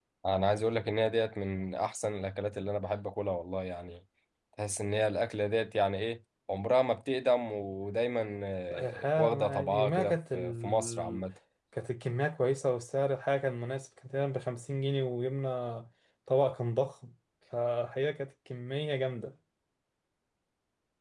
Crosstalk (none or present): present